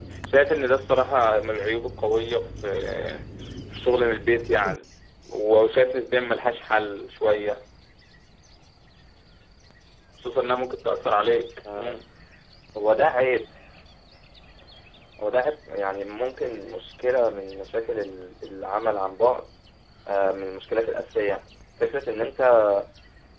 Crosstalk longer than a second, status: none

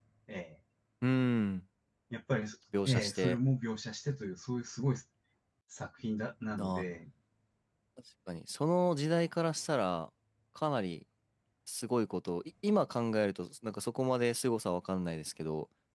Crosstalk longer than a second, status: none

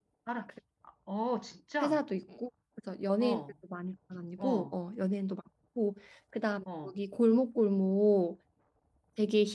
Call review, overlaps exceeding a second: none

